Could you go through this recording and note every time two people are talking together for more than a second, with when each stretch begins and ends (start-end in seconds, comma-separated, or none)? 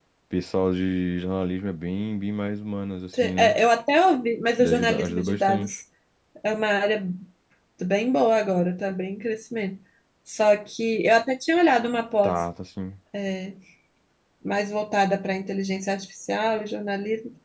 4.6-5.8